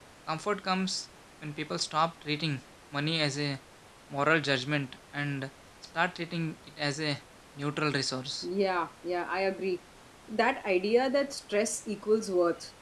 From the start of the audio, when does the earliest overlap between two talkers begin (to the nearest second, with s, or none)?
none